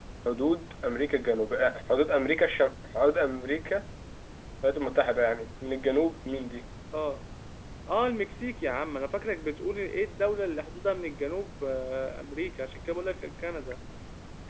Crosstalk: none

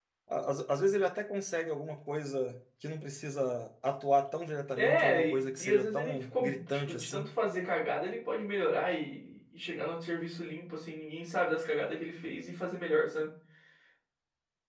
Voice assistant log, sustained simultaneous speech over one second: present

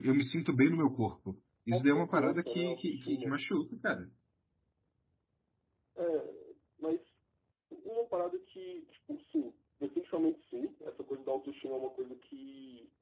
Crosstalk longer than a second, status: present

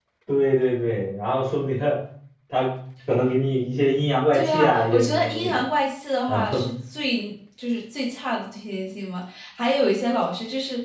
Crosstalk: present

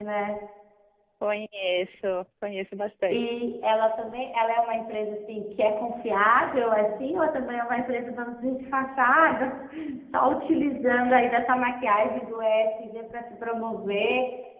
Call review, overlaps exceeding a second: none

